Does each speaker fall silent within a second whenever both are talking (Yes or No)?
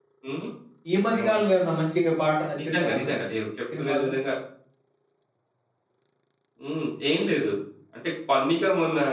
Yes